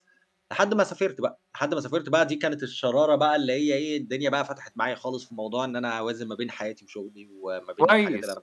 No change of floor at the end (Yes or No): No